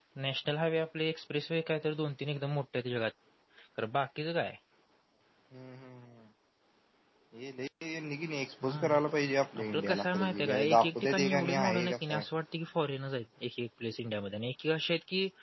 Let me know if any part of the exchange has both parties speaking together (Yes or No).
Yes